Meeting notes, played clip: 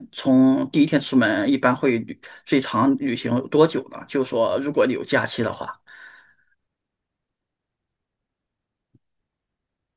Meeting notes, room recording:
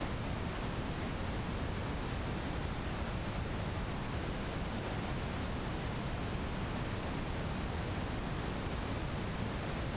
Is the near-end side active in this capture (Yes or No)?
No